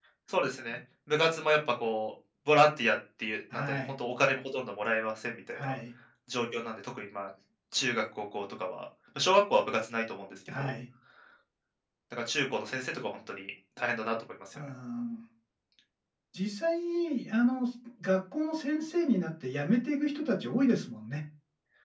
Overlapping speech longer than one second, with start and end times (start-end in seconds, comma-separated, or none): none